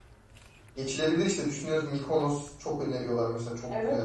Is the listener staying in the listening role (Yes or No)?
No